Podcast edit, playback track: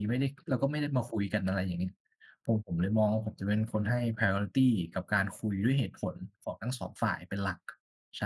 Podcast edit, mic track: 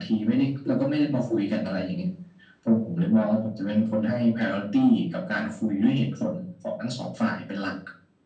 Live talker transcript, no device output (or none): none